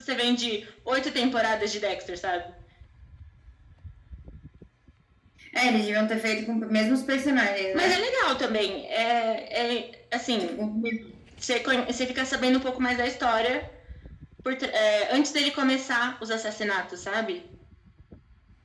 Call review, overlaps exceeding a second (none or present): none